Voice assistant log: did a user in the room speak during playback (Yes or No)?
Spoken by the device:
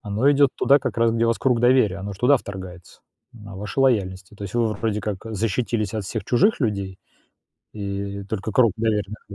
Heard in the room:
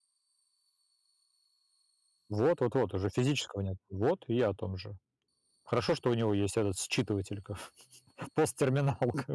Yes